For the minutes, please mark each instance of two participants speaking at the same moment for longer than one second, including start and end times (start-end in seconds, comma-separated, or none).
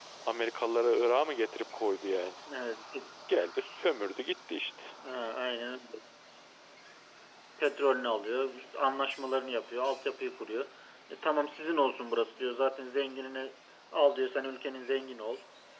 none